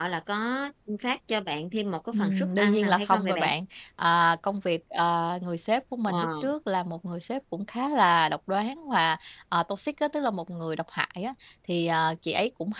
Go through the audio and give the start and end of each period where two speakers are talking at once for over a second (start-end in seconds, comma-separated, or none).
2.1-3.5